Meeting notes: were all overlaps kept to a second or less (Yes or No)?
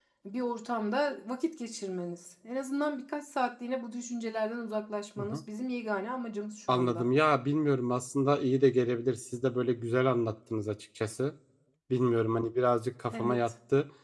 Yes